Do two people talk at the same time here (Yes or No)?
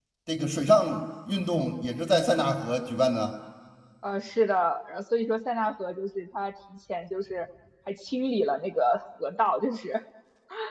No